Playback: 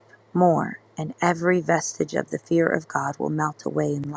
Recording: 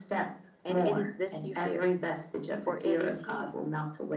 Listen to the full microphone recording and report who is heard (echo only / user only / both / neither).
both